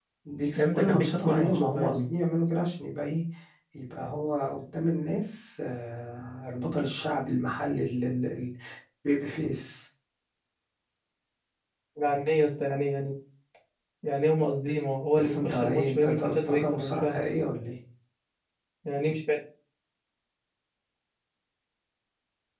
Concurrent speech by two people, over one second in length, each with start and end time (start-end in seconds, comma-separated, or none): 0.6-2.1, 15.2-17.2